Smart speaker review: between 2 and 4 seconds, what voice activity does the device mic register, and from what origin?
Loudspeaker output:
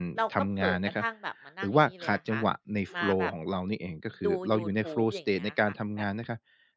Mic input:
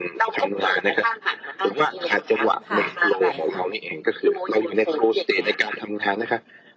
both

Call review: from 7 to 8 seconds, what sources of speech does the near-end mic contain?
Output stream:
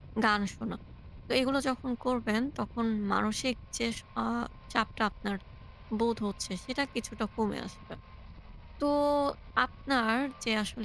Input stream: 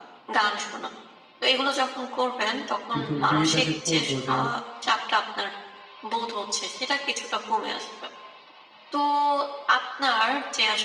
echo only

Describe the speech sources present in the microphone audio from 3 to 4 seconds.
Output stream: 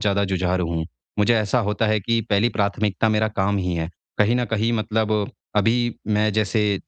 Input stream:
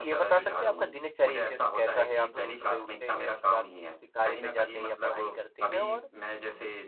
both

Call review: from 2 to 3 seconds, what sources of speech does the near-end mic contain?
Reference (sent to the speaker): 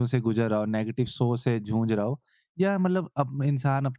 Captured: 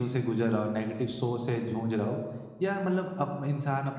echo only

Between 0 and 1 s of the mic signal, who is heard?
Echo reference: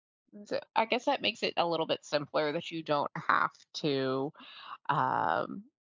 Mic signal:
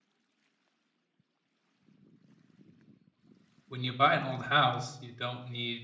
neither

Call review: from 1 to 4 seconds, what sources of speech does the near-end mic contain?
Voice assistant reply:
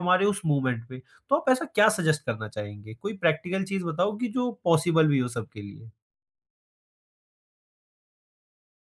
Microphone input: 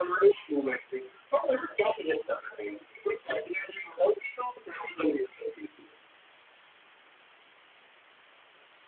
echo only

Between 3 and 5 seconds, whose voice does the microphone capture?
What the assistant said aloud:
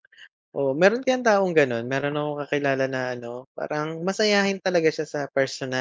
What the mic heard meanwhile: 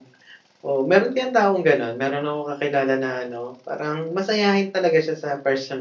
echo only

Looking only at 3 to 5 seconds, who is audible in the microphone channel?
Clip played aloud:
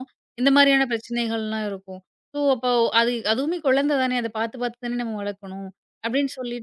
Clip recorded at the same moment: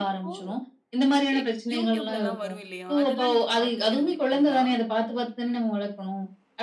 both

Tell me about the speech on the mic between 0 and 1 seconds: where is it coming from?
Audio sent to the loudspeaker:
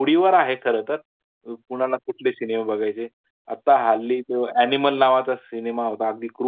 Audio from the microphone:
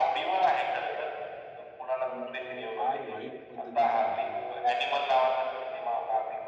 echo only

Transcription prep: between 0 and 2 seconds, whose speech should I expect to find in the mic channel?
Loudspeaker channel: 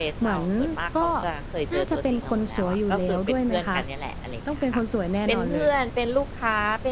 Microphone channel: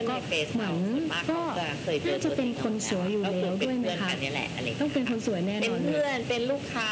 echo only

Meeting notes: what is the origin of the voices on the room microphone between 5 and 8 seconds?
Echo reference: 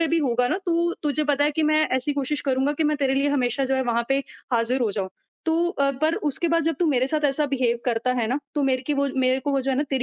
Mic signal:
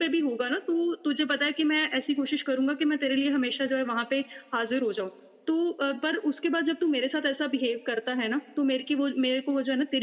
echo only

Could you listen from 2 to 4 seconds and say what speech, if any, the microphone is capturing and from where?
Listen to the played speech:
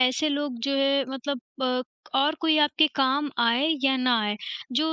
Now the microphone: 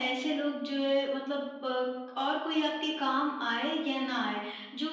echo only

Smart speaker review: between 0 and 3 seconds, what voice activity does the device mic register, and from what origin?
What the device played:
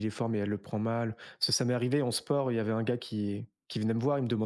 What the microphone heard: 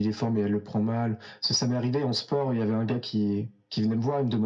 echo only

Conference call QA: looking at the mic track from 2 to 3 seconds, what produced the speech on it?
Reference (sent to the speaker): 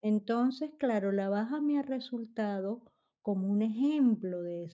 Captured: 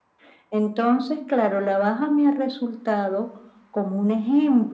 echo only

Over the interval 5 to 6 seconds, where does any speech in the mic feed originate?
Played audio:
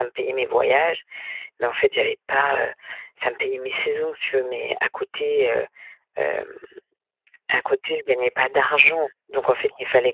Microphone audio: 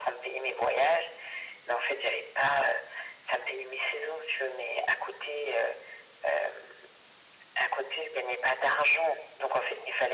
echo only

